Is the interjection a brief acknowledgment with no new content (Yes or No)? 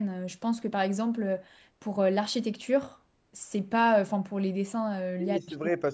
No